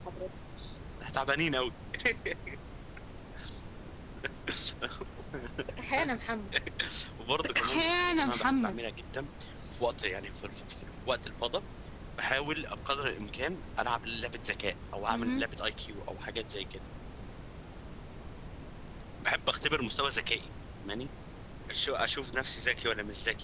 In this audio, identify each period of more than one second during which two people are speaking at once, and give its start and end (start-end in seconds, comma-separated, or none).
7.5-8.8